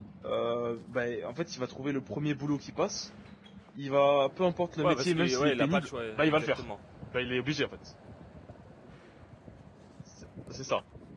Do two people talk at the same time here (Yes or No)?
Yes